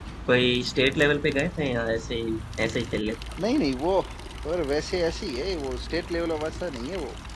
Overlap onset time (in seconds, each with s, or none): none